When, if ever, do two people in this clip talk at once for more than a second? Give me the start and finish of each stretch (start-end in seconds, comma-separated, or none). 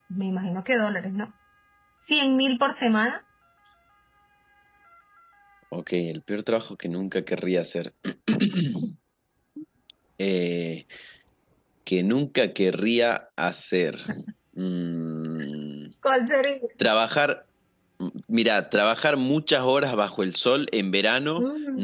none